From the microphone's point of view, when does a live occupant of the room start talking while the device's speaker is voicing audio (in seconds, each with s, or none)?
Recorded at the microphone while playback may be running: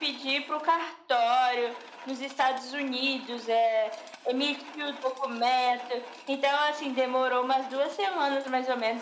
none